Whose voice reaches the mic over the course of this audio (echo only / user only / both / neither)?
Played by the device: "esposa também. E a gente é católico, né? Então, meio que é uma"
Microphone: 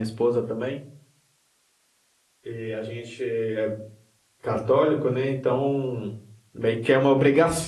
echo only